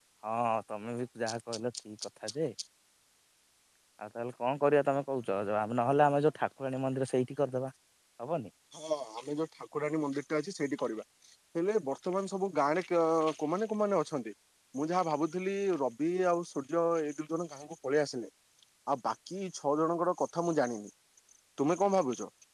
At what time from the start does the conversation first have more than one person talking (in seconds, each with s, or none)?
none